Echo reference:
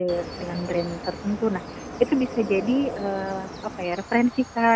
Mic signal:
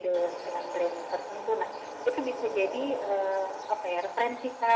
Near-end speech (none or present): none